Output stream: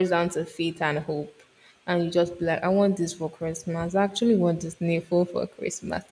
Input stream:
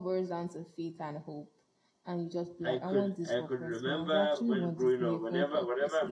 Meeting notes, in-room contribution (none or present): present